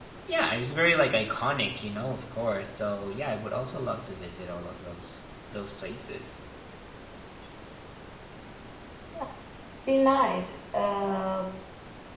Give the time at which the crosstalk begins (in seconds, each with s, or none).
none